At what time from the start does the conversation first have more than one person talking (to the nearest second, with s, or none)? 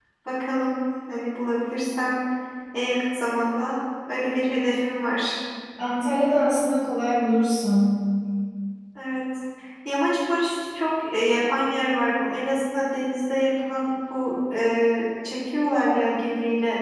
none